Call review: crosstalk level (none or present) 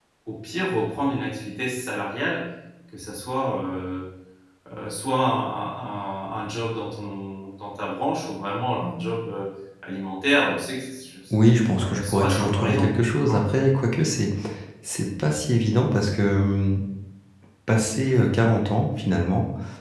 present